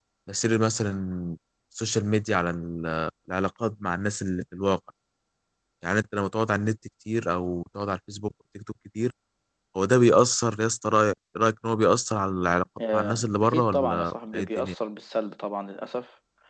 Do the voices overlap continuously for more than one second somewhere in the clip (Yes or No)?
Yes